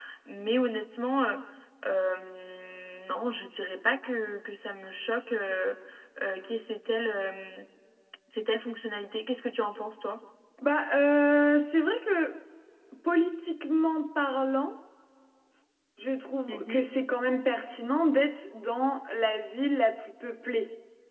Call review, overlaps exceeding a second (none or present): none